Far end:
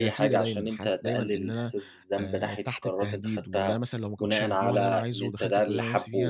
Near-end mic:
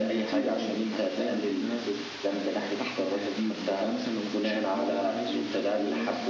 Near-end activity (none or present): none